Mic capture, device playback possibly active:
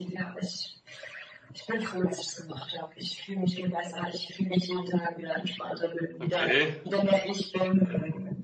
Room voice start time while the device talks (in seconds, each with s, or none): 6.2 s